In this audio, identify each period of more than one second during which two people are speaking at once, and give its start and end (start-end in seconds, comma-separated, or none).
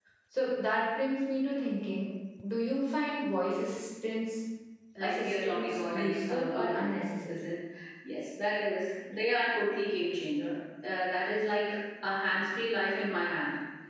5.0-6.8